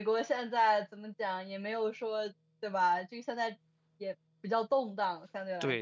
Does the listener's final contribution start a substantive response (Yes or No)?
Yes